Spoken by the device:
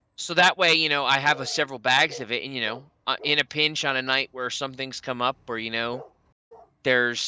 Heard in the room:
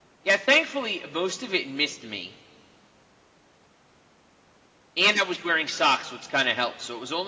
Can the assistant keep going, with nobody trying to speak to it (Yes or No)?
No